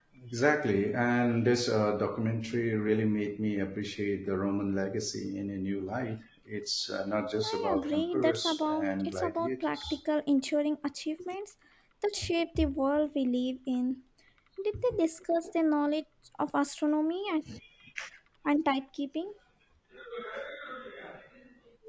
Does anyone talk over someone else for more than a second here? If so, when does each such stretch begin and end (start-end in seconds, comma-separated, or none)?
7.4-10.0